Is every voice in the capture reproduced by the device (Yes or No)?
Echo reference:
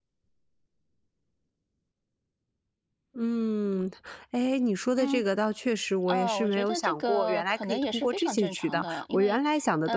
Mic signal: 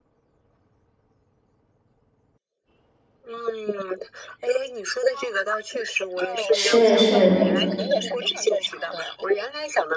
No